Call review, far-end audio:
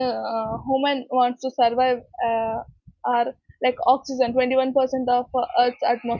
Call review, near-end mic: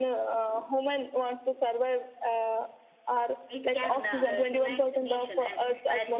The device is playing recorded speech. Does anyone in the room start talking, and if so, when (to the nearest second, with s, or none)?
3 s